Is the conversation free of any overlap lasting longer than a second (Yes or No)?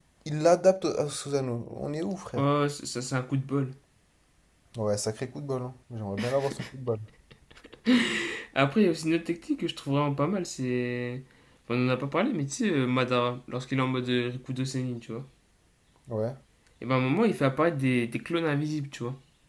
Yes